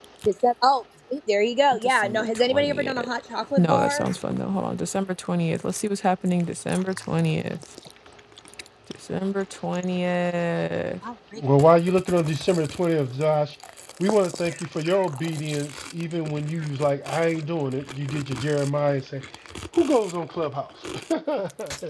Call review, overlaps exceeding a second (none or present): present